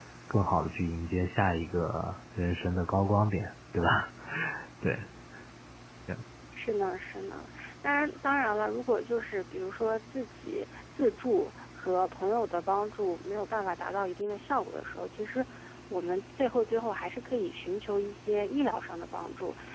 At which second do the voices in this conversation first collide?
none

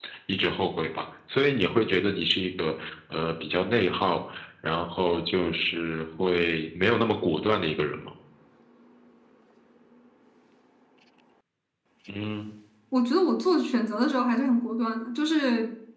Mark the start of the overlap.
none

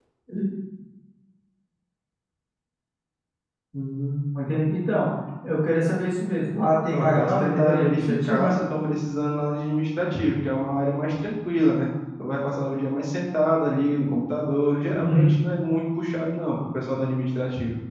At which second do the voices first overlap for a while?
7 s

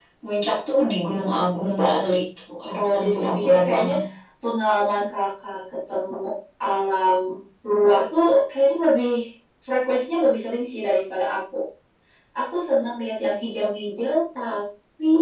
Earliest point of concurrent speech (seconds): 3 s

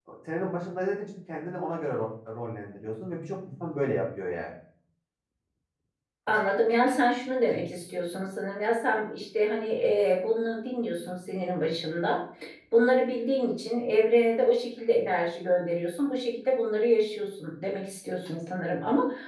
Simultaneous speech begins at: none

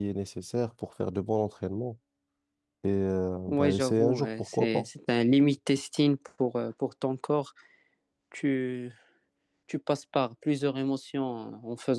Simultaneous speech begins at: 3 s

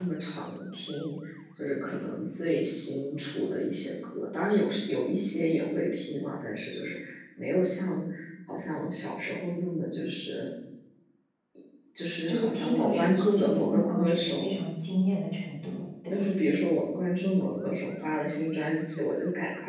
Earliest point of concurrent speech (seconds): 12 s

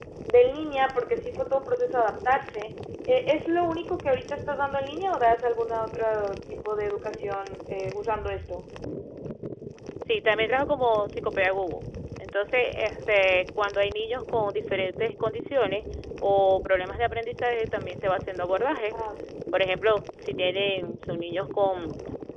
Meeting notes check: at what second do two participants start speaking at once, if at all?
none

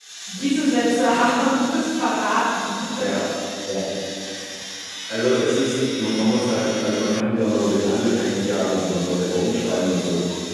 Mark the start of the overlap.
none

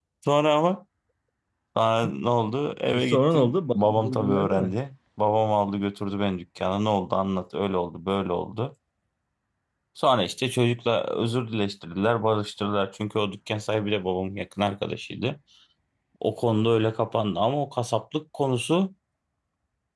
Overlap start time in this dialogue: 3 s

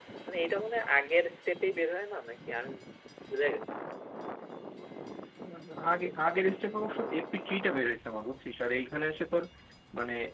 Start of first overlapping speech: none

